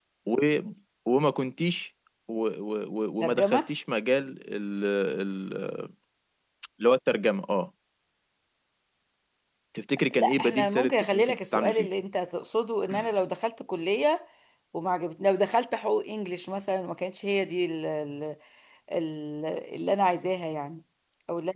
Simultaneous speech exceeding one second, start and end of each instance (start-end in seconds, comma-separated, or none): 10.2-11.9